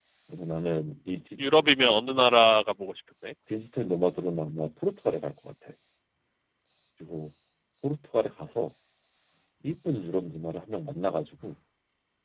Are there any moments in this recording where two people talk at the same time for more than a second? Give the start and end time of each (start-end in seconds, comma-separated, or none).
none